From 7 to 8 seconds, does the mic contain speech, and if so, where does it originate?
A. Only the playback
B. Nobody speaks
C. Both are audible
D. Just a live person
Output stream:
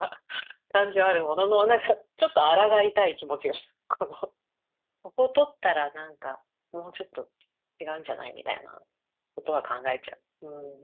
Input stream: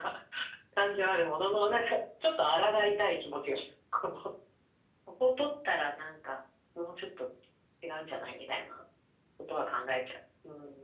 A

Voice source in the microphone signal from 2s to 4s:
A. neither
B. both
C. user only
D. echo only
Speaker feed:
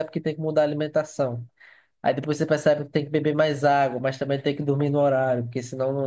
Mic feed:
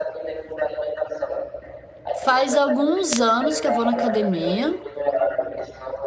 B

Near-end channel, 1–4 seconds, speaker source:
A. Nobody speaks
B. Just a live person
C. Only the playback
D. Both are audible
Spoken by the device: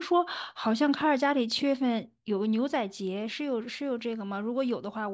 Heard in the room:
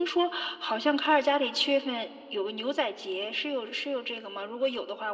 C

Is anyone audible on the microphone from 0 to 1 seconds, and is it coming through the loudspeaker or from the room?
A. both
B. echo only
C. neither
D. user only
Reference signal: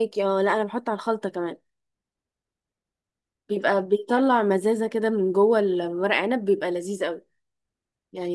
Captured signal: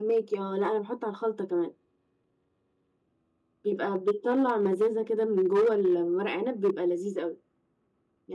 B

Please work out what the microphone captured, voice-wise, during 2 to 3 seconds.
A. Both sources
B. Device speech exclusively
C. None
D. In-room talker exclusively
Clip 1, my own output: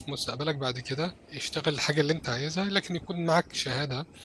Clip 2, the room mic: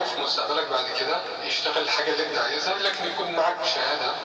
B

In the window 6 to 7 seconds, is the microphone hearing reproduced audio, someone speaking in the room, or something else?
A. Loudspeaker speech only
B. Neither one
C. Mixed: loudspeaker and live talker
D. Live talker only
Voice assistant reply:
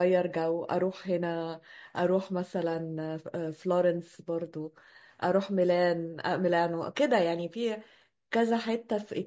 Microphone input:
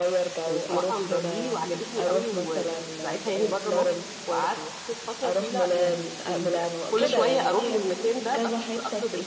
C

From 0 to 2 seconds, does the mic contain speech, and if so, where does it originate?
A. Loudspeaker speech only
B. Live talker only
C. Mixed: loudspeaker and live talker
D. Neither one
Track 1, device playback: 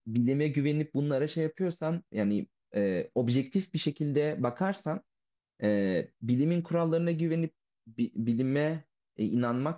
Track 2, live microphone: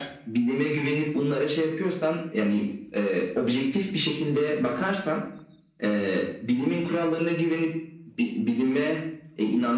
A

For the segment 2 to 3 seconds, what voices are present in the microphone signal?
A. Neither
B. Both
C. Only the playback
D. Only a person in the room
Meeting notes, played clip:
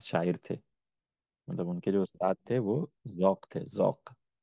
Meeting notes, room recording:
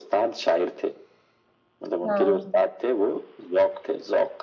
B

